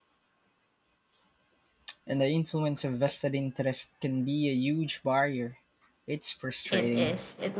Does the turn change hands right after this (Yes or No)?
Yes